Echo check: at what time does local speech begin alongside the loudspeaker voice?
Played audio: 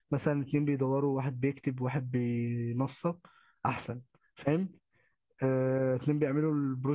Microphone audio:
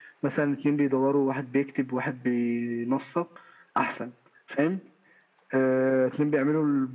none

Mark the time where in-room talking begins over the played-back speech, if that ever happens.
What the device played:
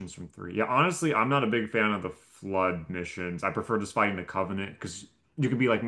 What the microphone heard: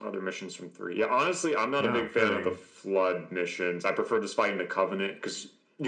2 s

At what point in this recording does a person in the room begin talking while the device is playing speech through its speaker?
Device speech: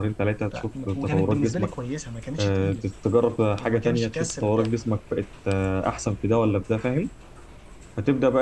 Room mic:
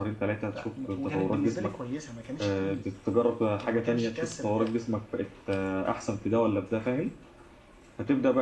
none

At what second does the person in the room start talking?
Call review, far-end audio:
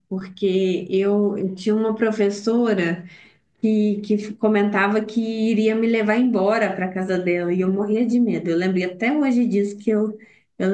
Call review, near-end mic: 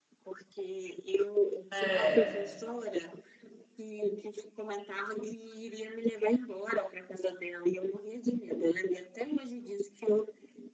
2 s

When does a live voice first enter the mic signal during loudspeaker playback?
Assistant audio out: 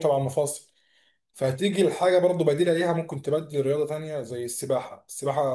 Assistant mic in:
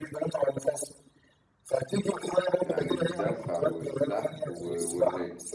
3 s

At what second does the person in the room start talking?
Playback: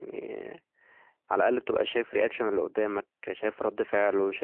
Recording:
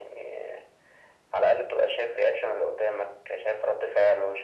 none

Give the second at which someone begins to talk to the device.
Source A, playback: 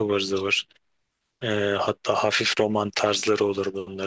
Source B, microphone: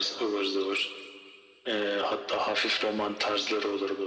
none

